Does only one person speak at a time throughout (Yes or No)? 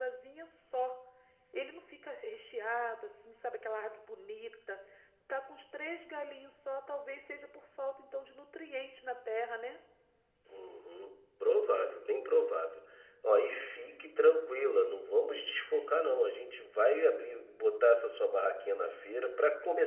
Yes